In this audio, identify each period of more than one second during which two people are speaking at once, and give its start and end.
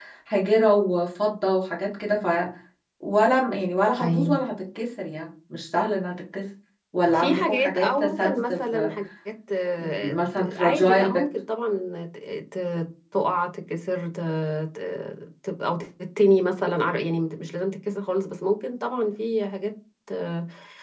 7.1-8.8, 10.0-11.2

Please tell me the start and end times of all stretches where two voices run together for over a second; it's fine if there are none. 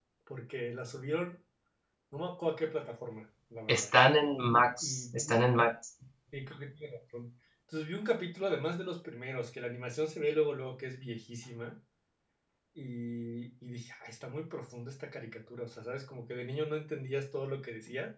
none

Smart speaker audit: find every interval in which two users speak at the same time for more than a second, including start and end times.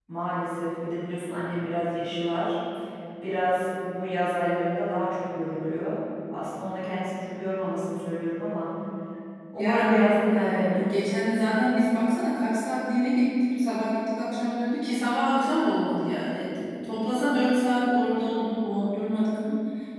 9.6-10.8

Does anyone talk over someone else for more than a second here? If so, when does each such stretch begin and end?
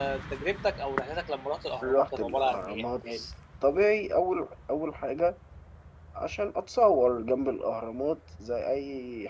1.8-3.0

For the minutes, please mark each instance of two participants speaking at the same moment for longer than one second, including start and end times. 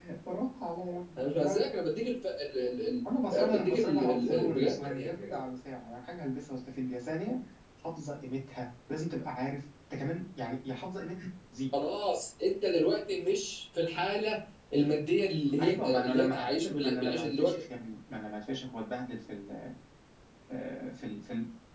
3.3-5.3, 15.6-17.5

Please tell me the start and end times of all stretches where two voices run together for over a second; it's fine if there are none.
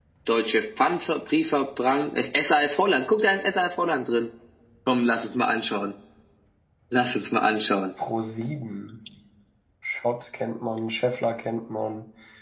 none

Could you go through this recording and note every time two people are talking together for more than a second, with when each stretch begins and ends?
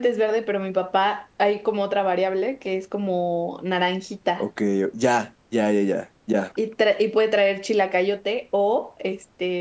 none

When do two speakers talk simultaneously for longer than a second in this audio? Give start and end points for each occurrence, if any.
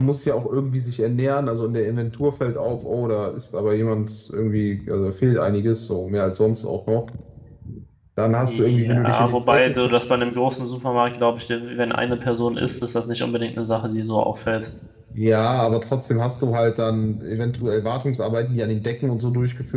8.5-10.1

